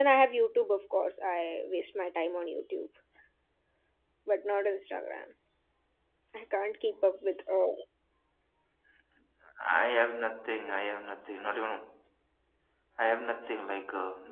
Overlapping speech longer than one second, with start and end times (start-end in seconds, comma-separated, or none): none